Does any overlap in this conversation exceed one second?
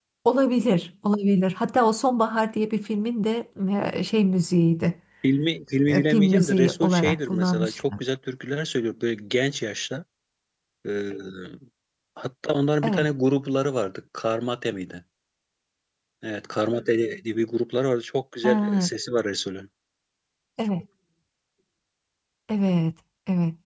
Yes, from 5.9 s

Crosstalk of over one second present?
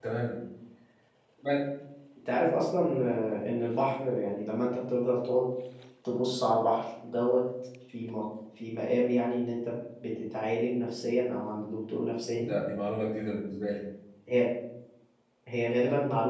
No

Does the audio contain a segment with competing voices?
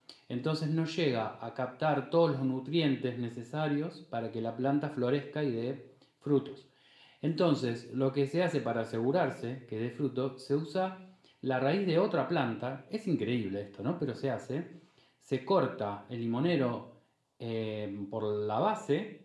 No

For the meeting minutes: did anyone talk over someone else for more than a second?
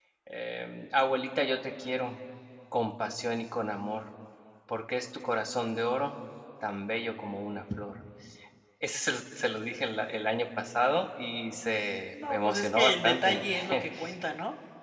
Yes, from 12.1 s

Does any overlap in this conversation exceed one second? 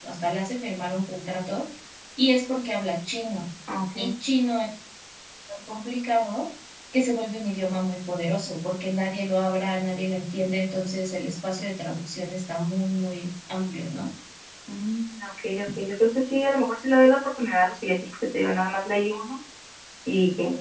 No

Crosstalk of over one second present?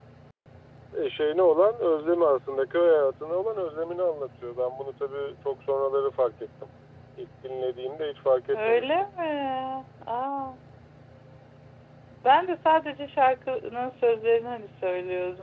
No

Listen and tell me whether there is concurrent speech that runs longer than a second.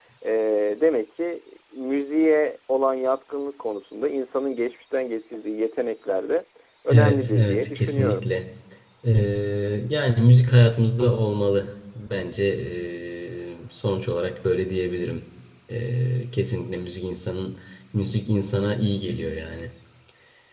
Yes, from 6.9 s

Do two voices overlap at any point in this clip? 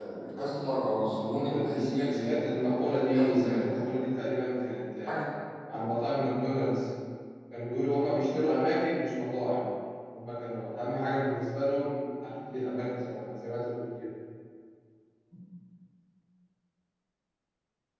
Yes, from 1.3 s

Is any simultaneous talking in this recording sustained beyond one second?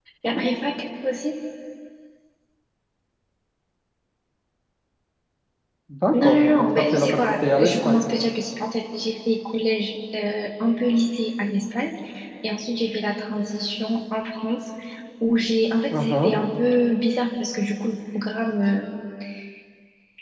Yes, from 6.1 s

